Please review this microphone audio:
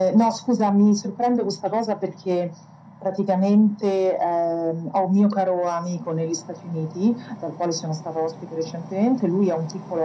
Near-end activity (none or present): none